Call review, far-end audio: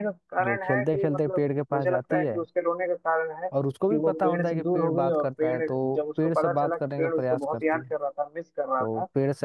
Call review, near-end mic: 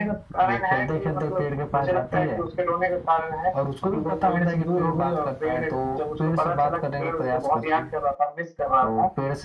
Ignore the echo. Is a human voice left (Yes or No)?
No